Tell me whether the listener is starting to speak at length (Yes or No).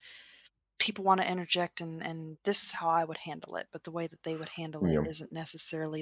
No